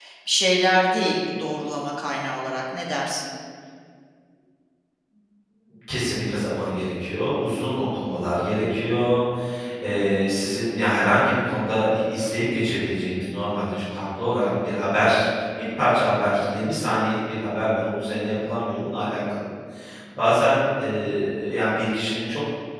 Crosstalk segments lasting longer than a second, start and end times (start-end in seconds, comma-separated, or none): none